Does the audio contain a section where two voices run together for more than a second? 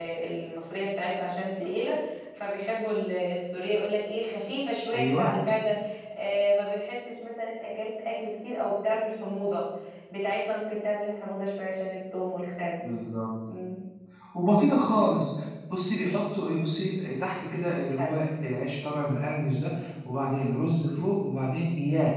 No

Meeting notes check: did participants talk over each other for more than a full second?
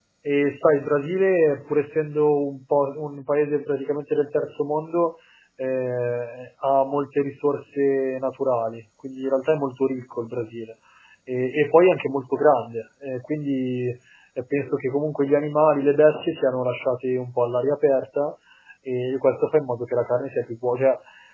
No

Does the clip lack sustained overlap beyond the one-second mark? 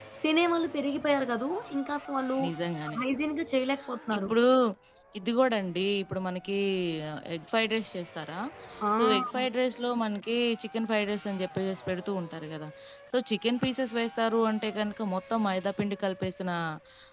Yes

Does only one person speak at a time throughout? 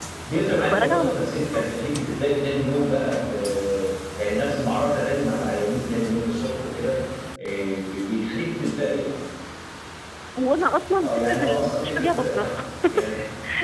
No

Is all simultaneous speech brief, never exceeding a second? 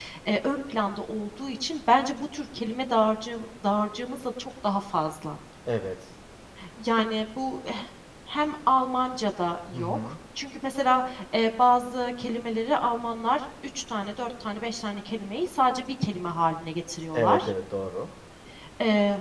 Yes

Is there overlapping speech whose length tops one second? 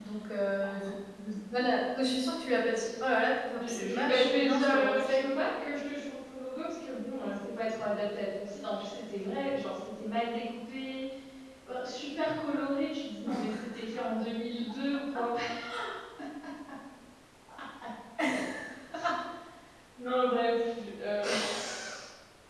Yes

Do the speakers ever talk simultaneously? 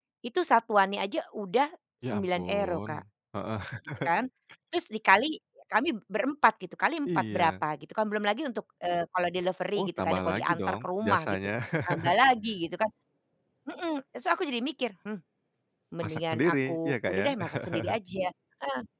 Yes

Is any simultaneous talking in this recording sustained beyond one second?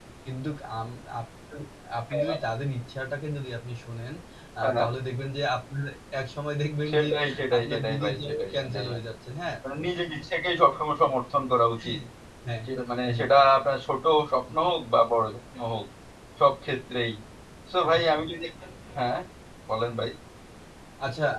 Yes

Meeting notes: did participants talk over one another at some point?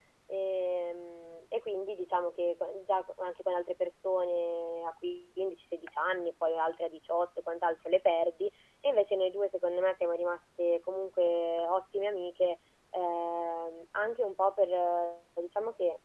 No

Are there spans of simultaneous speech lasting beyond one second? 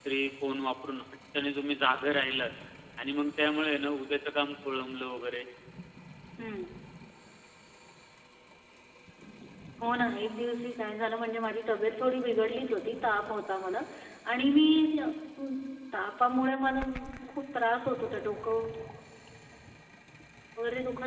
No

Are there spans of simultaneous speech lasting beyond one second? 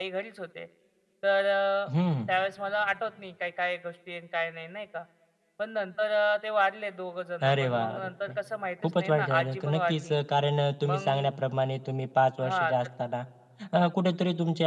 Yes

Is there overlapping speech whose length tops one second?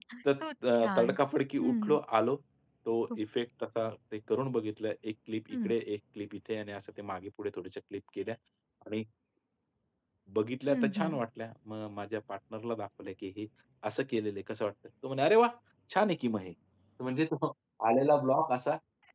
No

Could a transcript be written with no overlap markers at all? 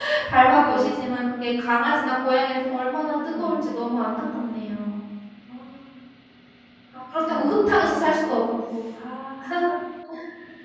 No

